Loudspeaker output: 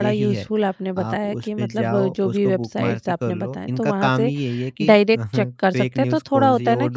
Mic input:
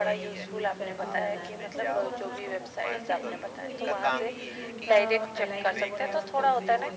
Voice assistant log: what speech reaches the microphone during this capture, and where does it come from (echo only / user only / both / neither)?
both